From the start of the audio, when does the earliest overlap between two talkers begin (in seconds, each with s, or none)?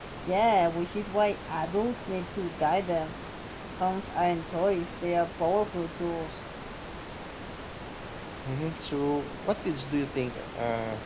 none